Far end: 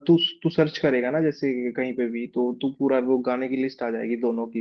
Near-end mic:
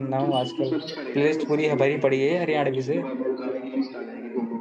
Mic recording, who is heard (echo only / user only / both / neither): both